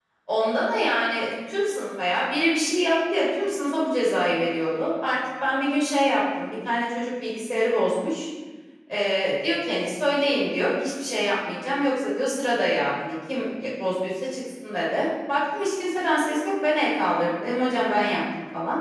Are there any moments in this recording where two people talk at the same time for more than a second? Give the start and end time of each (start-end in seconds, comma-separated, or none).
none